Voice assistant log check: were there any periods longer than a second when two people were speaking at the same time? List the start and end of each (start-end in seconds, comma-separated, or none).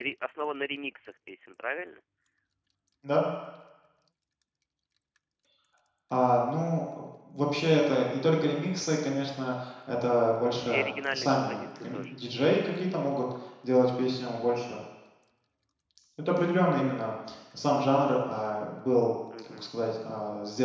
10.6-12.2